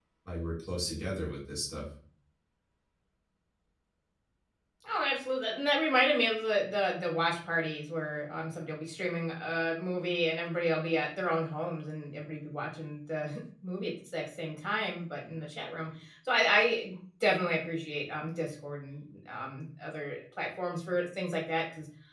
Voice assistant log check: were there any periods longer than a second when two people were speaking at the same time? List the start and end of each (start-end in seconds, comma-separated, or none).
none